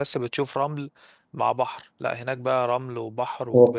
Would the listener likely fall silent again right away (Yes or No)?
No